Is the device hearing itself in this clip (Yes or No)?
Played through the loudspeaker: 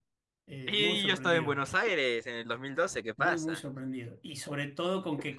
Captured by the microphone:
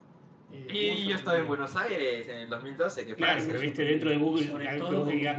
Yes